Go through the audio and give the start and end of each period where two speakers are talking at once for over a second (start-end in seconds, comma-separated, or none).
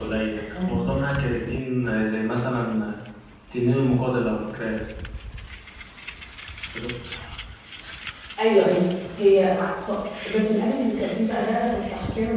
none